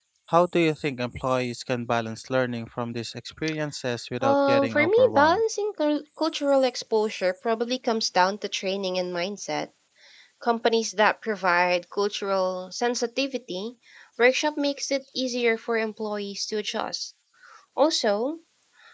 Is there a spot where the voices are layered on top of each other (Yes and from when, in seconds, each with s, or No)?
Yes, from 4.2 s